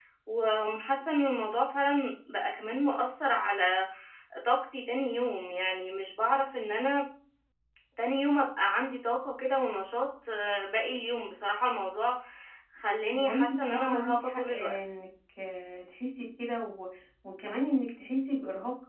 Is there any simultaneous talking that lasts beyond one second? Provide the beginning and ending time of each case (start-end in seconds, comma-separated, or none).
13.1-15.0